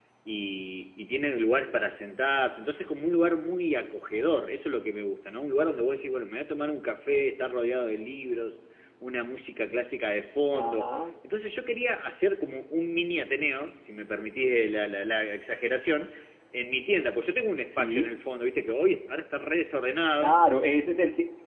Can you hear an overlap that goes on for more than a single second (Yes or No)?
No